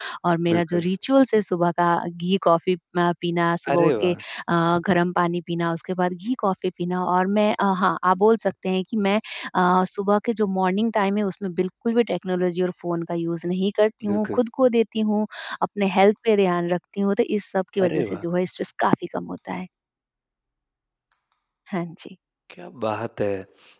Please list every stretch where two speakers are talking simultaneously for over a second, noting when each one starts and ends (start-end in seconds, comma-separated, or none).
none